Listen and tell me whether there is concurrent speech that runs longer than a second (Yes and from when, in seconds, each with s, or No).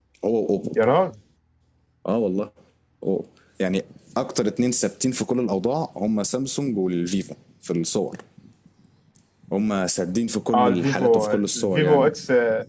Yes, from 10.5 s